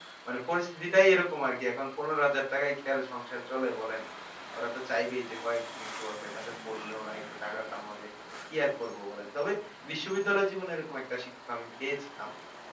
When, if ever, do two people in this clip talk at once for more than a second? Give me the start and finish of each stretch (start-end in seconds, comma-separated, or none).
none